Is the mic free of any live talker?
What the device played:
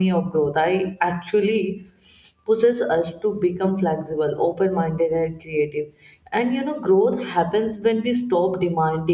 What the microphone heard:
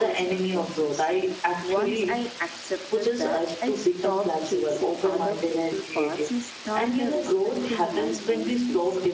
No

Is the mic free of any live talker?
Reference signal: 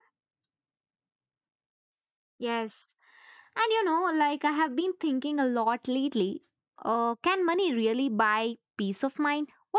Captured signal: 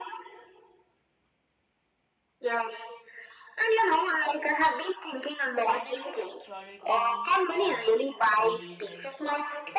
No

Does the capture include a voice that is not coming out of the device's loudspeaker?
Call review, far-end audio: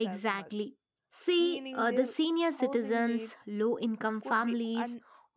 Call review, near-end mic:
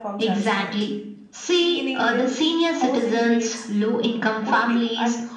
No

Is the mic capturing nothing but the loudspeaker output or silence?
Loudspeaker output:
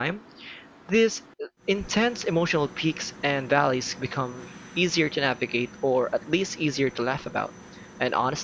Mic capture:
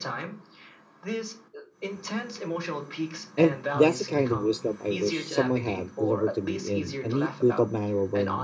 No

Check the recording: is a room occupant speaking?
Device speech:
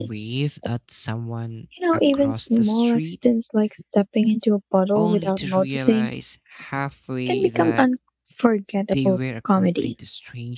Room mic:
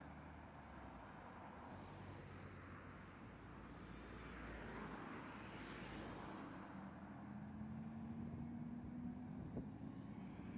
No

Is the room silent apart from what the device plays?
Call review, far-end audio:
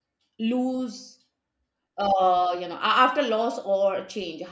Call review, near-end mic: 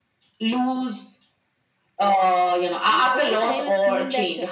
No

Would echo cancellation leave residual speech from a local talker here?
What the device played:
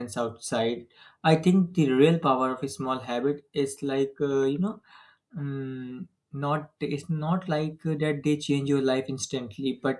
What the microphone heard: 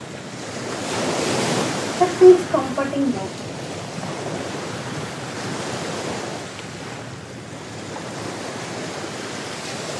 Yes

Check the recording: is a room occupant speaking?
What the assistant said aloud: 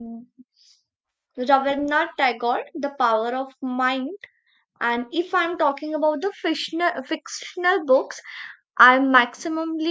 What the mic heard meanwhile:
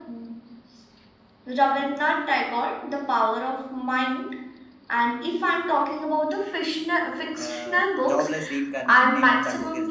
Yes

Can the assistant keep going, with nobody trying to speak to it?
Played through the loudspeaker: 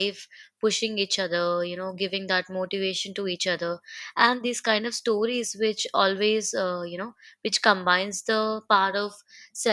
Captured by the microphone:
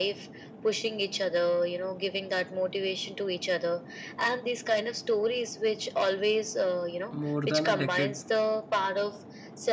No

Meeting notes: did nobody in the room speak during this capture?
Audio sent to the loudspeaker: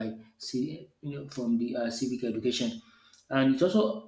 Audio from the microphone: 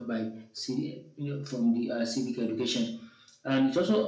Yes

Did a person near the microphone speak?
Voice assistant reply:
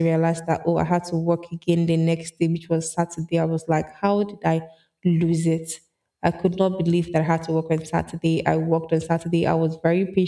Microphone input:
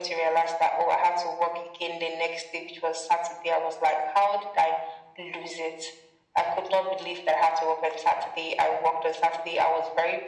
No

